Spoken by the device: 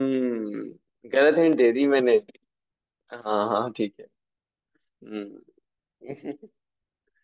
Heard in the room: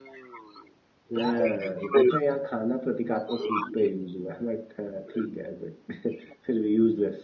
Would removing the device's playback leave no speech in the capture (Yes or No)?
No